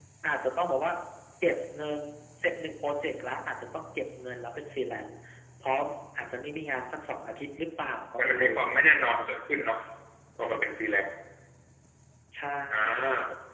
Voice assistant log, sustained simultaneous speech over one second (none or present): none